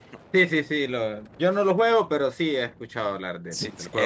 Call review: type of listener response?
taking over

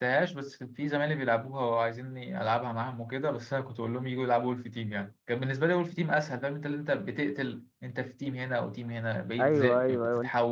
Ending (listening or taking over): taking over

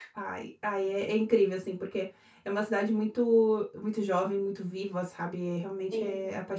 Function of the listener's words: taking over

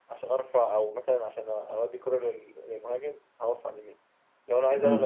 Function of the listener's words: listening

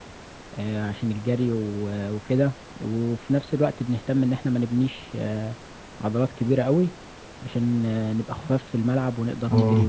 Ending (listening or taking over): taking over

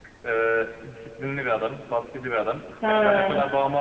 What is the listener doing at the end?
listening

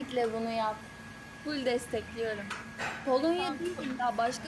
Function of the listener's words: listening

